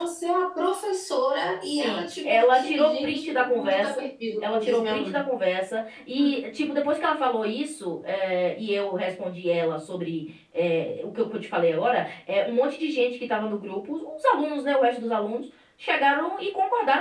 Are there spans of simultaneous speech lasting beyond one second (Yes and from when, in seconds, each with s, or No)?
Yes, from 1.7 s